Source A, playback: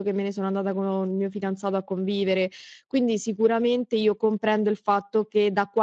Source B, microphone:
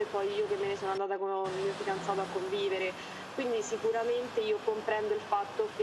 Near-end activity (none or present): none